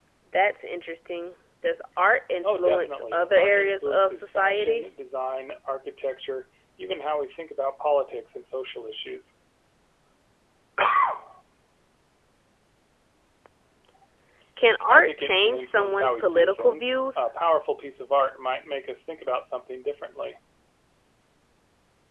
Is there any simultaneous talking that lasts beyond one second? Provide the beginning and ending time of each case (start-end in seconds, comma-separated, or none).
2.4-4.8, 14.9-17.2